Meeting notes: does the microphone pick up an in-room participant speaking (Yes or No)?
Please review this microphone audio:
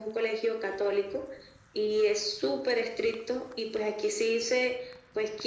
No